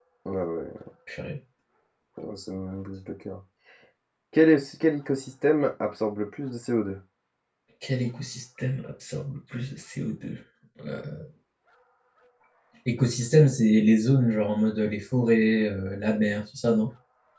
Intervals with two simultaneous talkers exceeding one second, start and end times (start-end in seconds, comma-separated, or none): none